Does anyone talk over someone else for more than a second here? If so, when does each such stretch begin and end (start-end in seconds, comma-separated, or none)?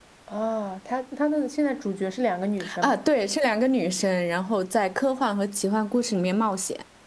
none